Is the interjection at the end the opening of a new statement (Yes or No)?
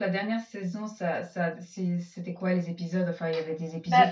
No